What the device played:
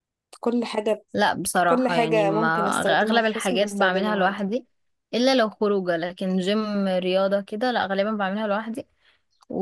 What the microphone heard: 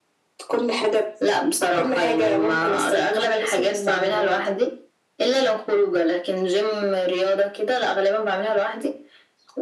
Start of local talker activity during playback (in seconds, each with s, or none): none